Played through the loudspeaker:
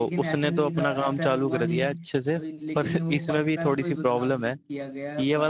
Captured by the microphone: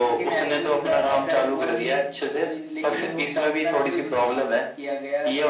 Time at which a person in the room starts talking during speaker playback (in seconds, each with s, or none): none